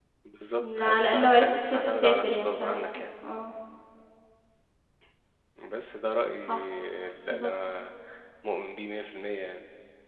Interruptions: present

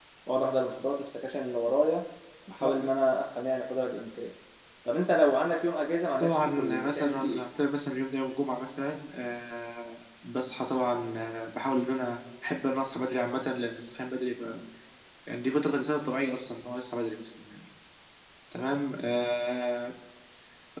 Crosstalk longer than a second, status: present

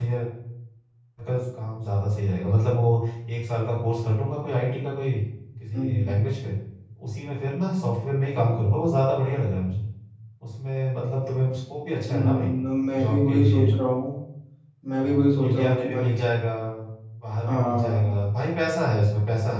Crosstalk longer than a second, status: present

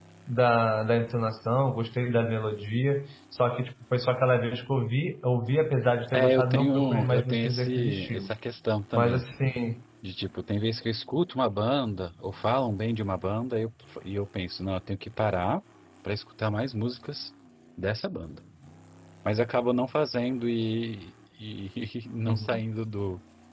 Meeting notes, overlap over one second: present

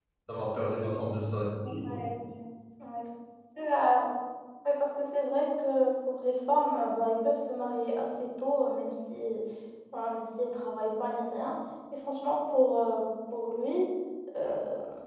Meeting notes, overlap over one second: none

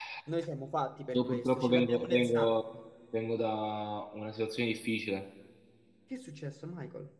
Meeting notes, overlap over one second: present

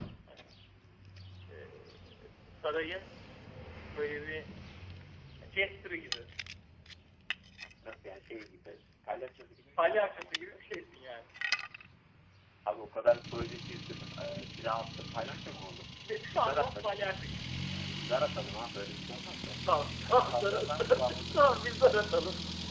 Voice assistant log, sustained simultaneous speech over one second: present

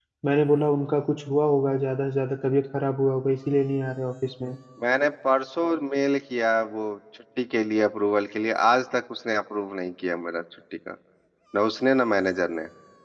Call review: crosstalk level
none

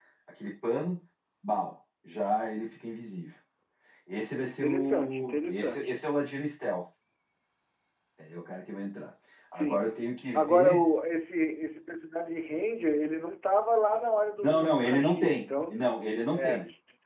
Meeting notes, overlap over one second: present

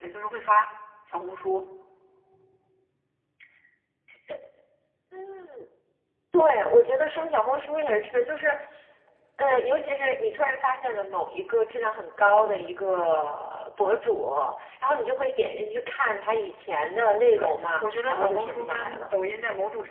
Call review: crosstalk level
present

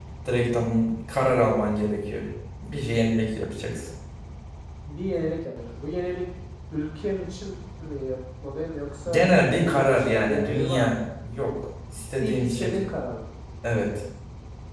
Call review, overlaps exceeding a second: present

